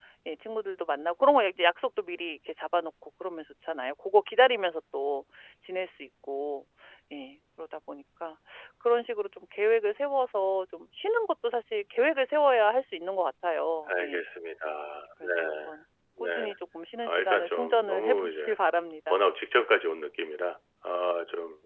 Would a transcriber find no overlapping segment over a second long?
No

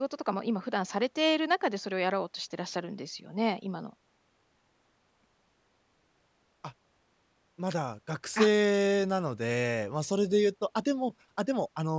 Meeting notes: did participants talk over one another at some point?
No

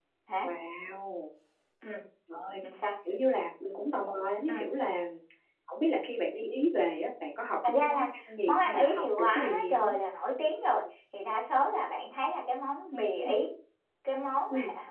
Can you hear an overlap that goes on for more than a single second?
Yes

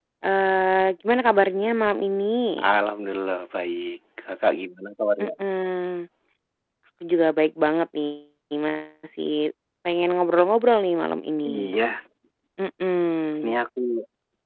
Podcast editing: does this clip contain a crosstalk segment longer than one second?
No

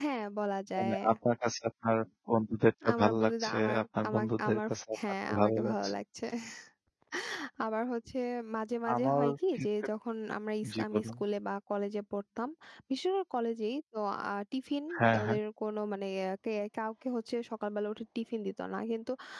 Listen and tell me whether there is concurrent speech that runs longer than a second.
Yes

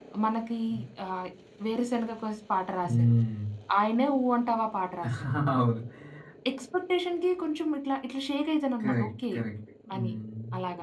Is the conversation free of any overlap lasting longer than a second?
Yes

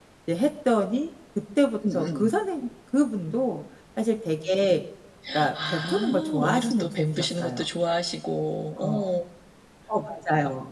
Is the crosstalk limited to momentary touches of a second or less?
No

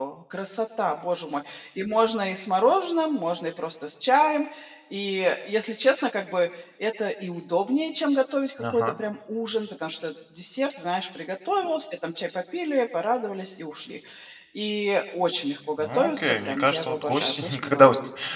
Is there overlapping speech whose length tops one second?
Yes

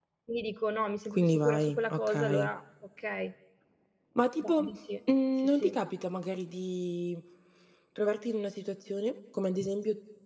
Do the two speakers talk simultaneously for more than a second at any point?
Yes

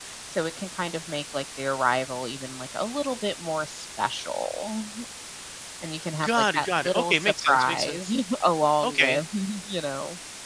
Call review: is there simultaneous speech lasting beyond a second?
Yes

